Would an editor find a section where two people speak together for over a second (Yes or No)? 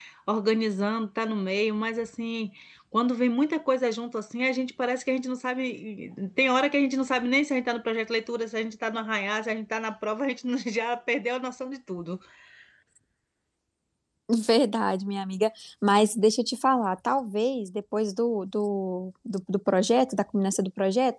No